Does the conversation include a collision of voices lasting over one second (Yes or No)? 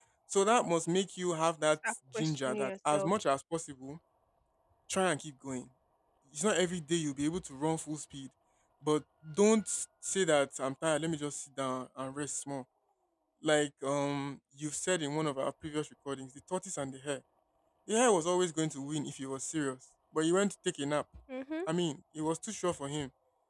Yes